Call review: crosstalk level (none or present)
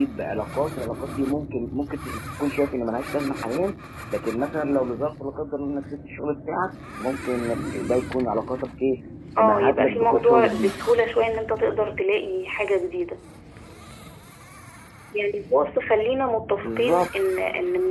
present